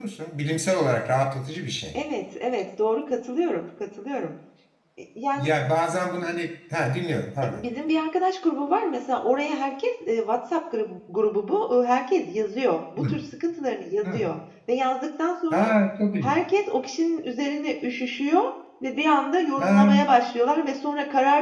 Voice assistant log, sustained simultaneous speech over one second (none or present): none